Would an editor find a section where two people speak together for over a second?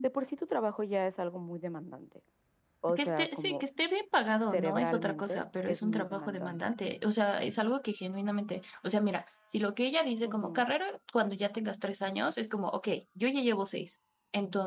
Yes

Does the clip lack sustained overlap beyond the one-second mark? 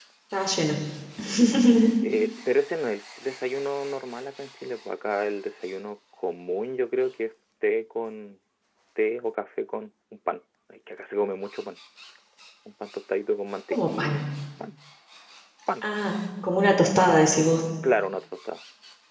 Yes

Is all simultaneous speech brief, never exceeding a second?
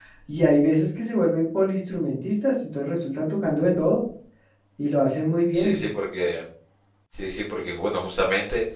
Yes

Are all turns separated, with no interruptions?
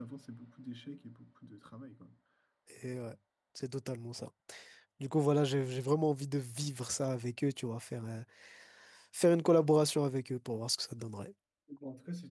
Yes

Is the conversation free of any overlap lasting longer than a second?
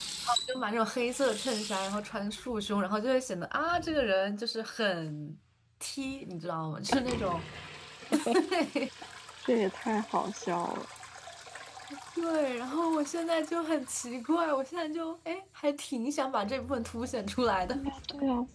Yes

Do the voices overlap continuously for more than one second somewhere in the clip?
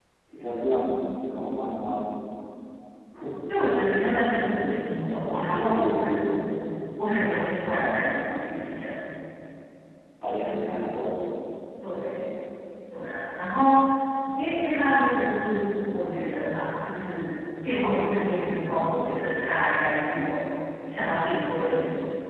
Yes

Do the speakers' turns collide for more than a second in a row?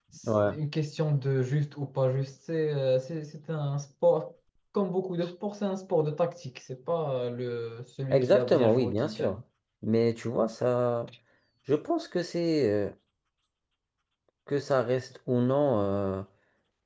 Yes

